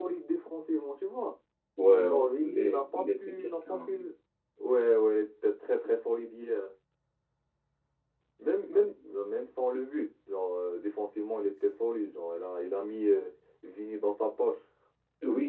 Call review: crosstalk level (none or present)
present